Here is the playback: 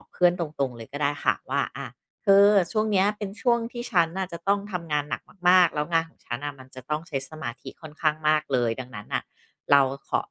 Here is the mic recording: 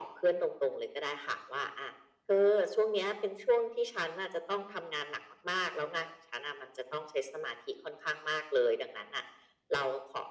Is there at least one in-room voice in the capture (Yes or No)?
No